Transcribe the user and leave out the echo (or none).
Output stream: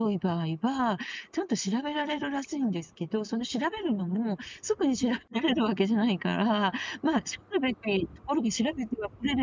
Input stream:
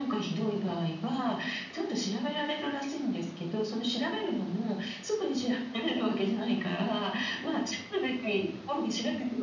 none